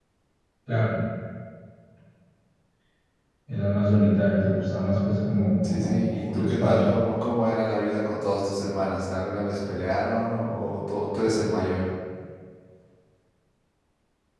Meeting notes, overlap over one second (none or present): present